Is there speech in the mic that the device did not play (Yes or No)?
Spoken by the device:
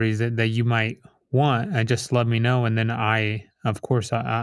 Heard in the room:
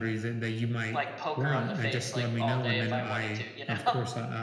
Yes